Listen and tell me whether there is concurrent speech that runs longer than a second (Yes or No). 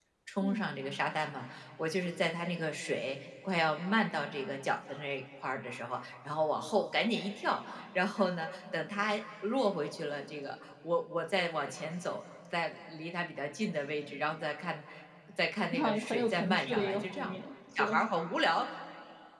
Yes